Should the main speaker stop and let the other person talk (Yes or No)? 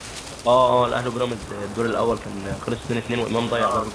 Yes